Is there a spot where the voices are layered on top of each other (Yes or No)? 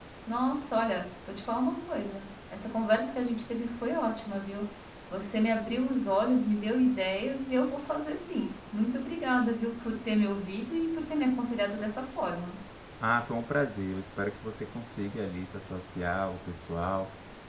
No